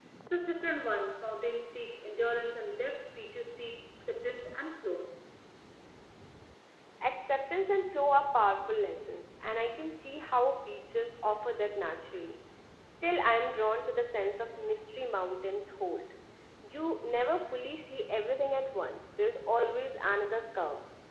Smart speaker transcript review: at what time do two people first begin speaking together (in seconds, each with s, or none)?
none